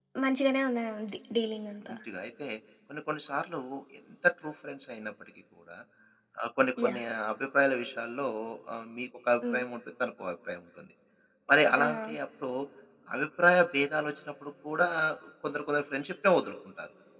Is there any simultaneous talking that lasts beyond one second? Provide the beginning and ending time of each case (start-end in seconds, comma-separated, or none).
none